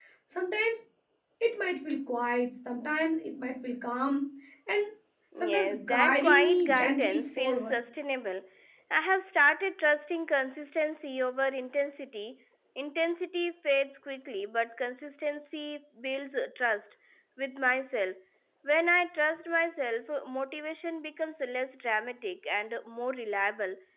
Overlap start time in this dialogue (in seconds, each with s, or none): 5.4 s